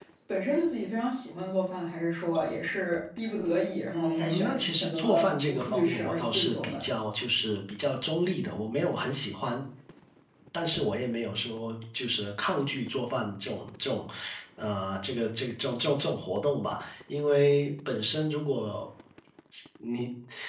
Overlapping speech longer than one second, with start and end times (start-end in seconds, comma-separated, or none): 3.9-6.9